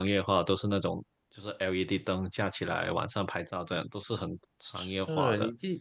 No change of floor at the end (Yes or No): No